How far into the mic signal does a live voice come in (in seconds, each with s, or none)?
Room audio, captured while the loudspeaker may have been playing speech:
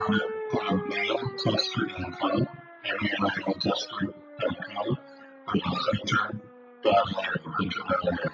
none